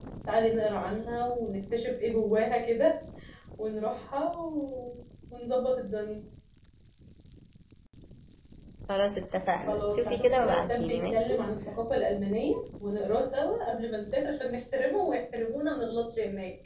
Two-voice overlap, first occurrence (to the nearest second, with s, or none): 10 s